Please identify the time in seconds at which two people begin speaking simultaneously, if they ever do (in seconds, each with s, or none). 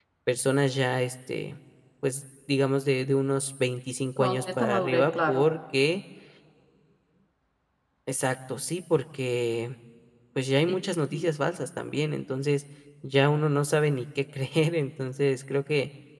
4.2 s